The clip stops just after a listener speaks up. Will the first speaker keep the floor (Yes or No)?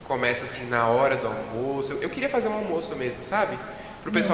Yes